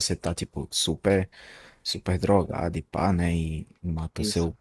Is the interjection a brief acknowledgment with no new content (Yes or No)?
Yes